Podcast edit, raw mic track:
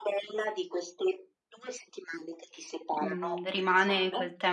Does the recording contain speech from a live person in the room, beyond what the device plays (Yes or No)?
Yes